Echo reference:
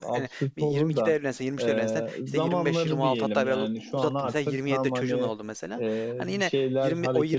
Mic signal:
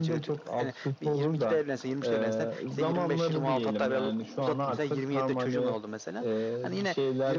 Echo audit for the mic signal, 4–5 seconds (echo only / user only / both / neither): echo only